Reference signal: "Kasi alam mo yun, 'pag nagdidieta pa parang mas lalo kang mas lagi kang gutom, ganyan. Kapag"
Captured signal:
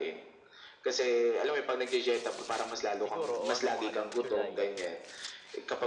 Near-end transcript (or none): Siguro o ano mga July,